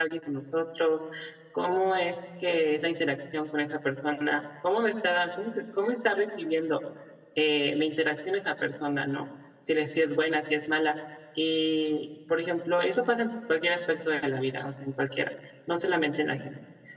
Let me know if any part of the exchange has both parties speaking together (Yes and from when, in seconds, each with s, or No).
No